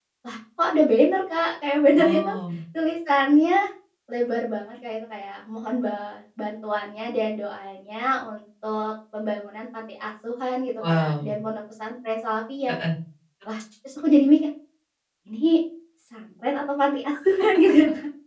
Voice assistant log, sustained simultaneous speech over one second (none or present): none